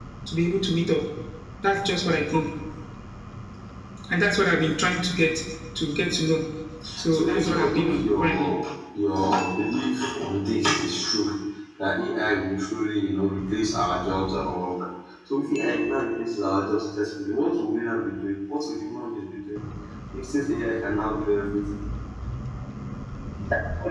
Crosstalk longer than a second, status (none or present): present